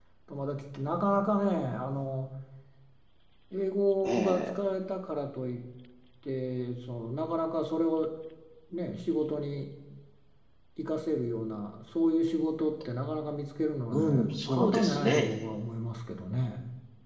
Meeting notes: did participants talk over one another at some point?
Yes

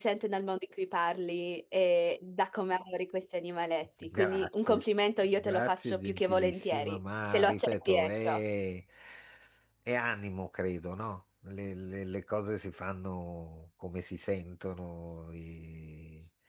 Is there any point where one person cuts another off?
Yes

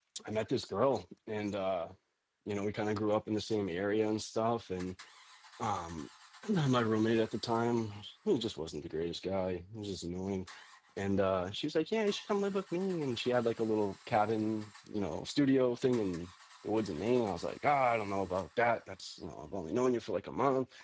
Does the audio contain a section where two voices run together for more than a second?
No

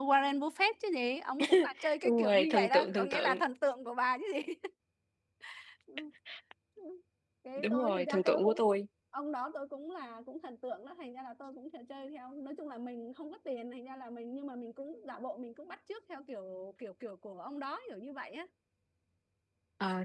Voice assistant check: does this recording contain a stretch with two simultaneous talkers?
Yes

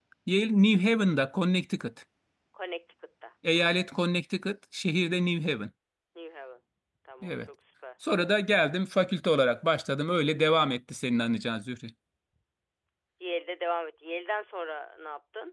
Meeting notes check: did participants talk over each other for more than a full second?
No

